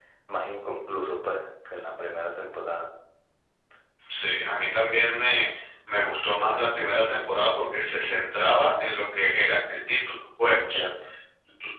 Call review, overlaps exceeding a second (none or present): none